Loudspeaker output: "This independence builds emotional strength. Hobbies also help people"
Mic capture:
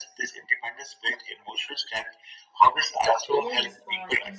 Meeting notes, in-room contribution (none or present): present